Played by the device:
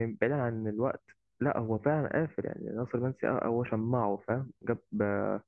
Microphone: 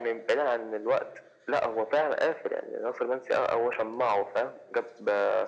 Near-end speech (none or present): none